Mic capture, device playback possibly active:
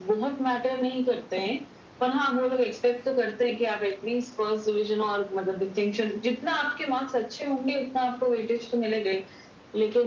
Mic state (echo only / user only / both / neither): echo only